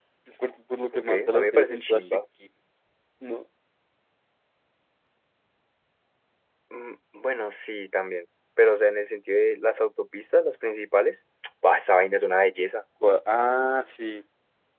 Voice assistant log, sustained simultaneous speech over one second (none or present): present